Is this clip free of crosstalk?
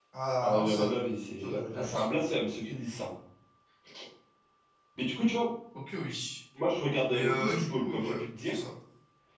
No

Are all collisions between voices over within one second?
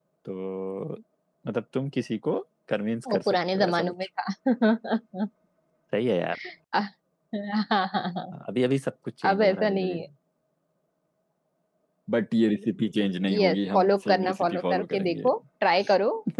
No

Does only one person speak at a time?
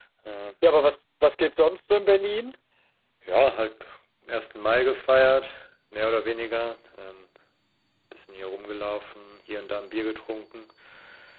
Yes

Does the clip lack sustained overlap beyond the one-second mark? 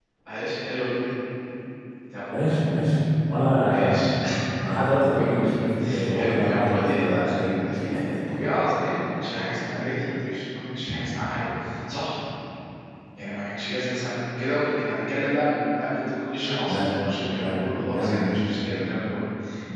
No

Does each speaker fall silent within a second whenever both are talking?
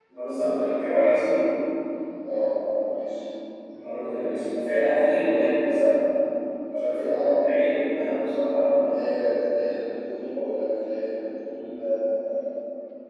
Yes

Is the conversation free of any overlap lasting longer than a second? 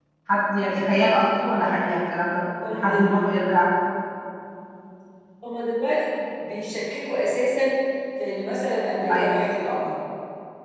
Yes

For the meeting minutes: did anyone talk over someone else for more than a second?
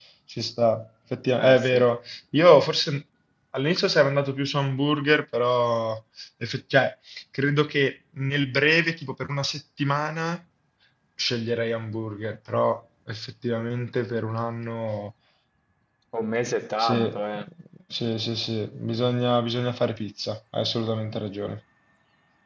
No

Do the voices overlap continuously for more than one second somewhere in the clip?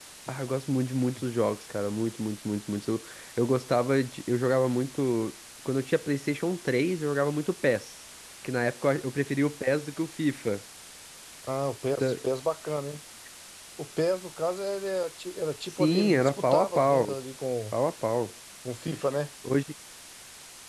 Yes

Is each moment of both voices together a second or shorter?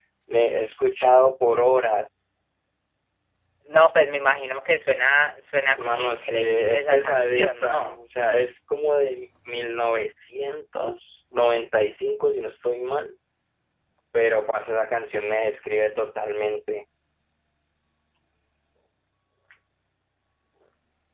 No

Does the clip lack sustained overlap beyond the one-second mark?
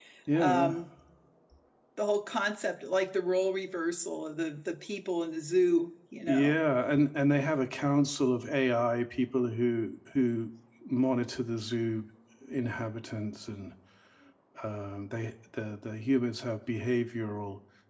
Yes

